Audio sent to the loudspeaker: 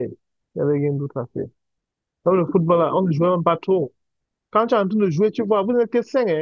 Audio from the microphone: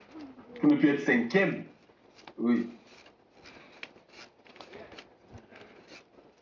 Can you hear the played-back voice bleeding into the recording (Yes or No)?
No